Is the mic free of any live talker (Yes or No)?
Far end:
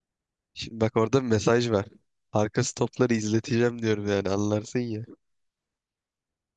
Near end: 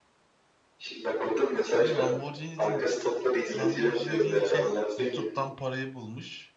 No